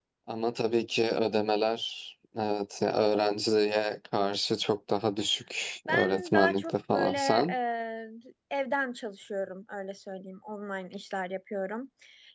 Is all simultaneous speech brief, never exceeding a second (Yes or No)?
No